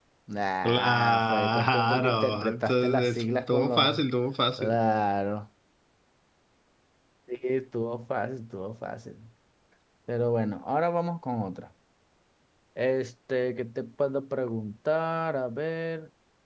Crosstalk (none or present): present